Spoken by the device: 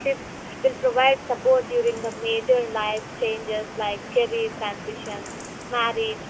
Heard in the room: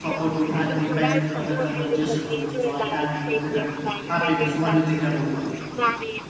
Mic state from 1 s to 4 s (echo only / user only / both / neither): both